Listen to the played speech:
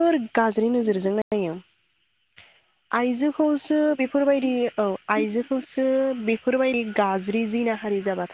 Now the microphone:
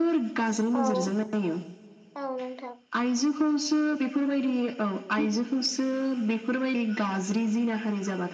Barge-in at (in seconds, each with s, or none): 0.8 s